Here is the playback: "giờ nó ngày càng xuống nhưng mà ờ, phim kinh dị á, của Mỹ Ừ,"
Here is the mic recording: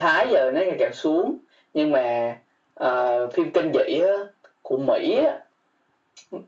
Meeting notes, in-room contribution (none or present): none